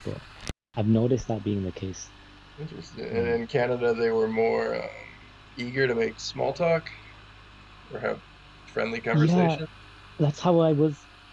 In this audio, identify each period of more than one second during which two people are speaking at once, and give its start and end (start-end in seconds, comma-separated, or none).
none